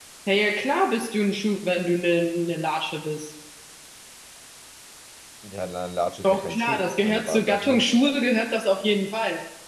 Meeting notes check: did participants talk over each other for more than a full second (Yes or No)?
Yes